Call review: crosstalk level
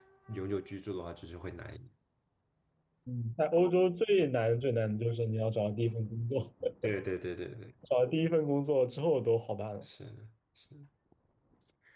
none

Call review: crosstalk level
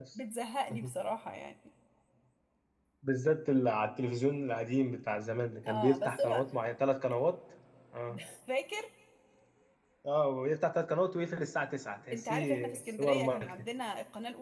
present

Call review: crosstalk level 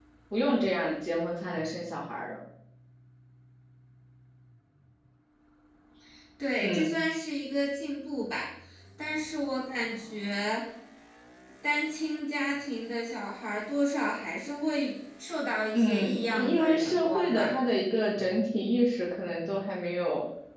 present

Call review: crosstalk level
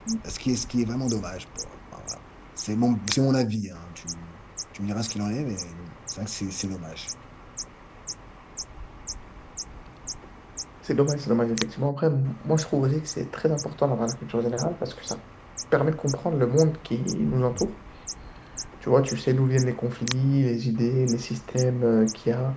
none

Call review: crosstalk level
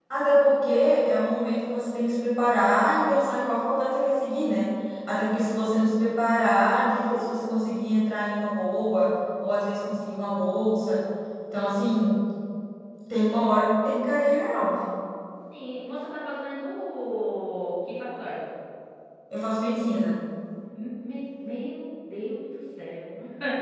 none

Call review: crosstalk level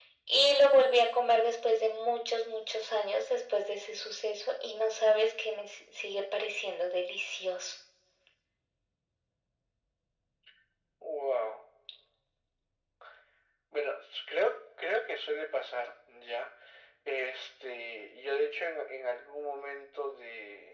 none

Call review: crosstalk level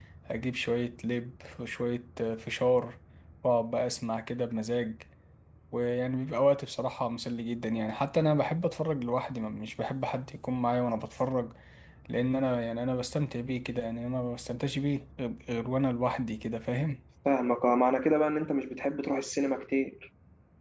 none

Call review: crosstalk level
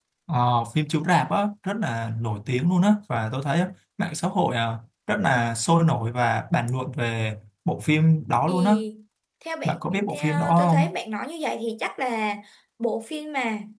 present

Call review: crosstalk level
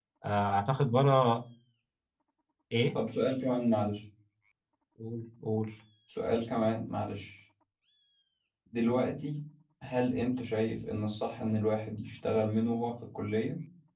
none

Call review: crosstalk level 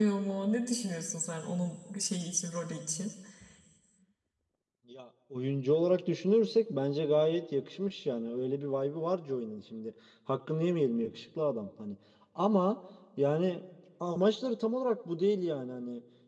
none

